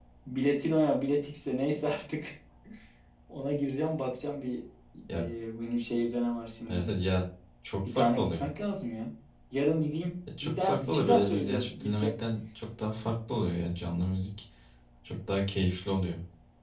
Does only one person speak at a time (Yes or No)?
No